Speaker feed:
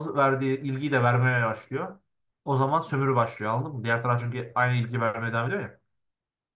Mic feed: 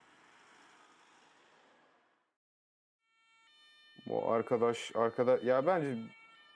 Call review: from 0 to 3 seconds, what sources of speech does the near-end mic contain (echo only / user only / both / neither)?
neither